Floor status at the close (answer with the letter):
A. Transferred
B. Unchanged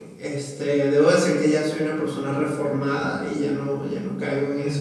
A